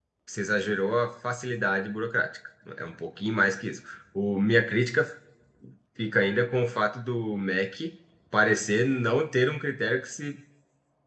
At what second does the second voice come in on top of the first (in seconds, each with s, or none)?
none